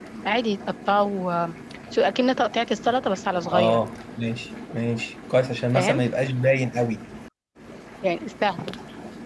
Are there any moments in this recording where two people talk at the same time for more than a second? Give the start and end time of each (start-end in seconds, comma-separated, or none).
none